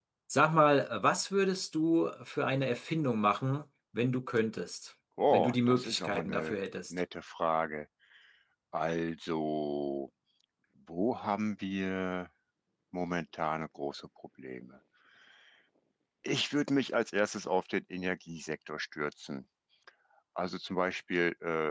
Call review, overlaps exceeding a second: present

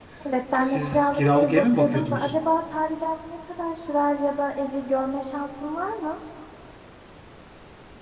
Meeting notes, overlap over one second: present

